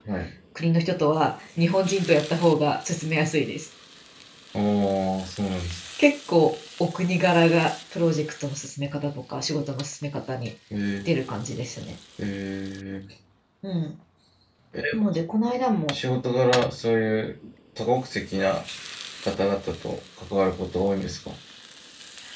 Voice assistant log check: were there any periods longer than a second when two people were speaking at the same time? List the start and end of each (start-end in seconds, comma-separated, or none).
none